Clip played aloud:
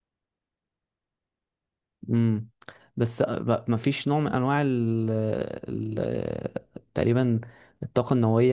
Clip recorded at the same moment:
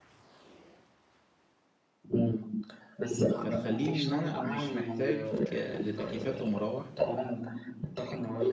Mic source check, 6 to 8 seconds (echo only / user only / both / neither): both